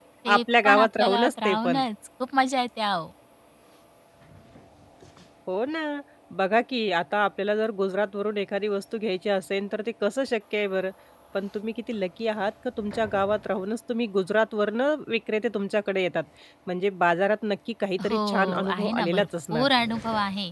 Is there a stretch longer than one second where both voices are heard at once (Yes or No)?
Yes